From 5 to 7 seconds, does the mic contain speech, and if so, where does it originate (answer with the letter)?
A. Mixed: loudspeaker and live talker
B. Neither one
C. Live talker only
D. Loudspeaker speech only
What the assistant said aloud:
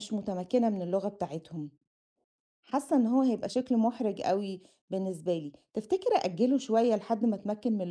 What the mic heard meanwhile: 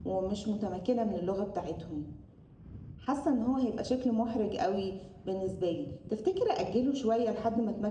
D